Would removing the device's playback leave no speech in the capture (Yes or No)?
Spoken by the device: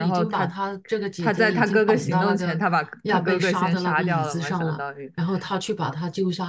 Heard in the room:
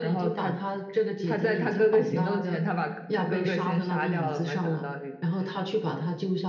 Yes